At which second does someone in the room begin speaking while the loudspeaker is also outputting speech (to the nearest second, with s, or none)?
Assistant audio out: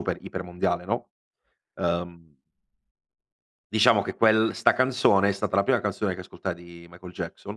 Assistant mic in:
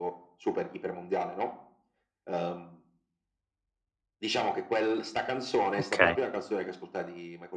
6 s